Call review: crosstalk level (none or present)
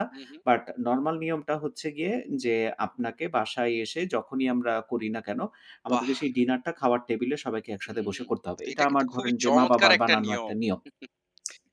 present